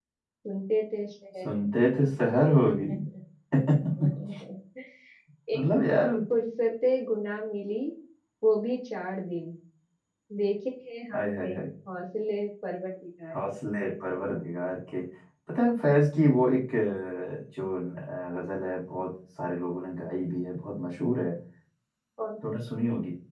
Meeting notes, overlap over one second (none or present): none